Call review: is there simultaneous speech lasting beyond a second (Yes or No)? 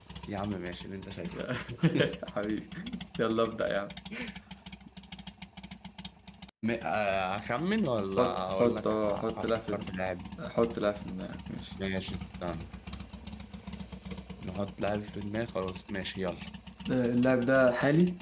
Yes